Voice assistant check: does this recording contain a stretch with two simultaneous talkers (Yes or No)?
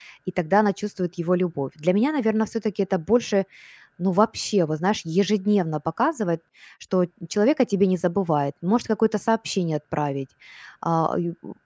No